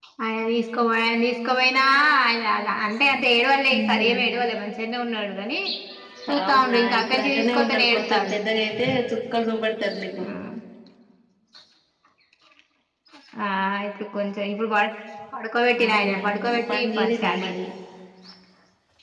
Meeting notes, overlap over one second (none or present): present